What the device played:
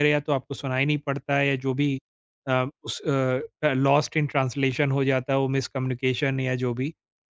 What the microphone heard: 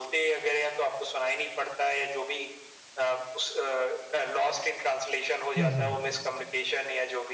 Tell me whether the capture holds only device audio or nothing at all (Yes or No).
No